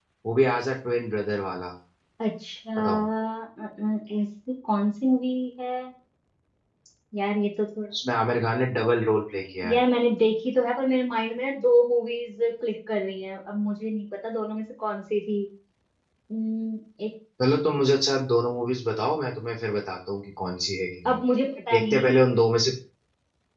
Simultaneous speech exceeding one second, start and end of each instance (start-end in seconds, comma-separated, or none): none